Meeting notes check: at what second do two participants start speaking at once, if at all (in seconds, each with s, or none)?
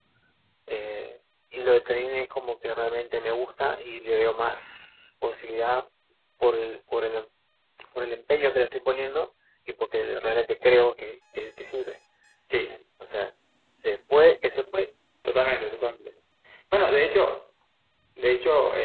none